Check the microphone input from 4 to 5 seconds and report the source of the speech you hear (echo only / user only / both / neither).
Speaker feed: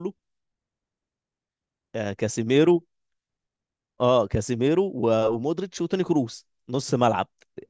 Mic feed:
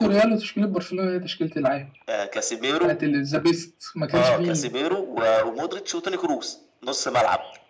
both